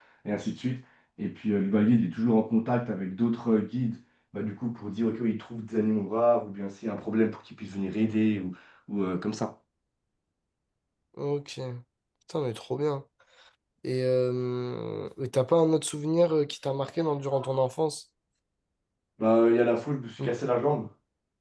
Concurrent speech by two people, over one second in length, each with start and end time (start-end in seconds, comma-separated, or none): none